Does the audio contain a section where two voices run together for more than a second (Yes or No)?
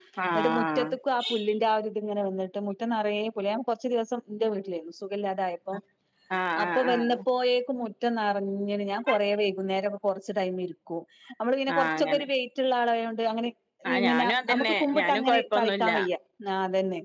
Yes